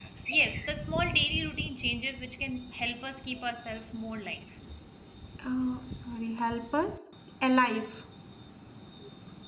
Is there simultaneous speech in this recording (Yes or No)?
No